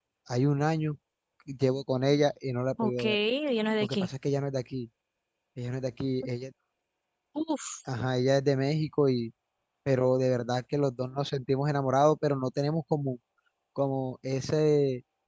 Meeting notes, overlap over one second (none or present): none